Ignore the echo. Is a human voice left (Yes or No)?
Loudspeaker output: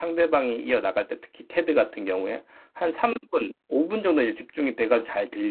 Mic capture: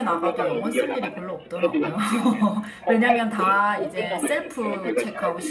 Yes